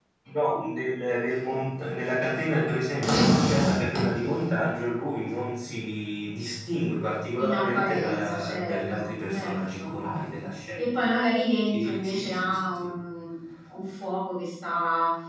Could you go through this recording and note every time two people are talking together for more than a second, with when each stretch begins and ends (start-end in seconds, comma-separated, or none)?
7.4-10.0, 11.7-12.9